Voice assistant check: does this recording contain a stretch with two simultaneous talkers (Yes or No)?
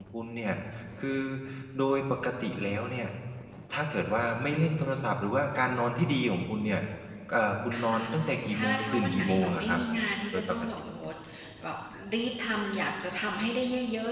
Yes